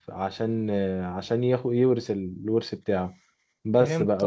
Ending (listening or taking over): listening